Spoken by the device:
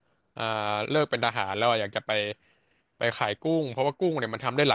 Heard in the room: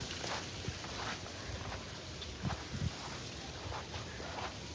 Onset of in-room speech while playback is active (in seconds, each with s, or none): none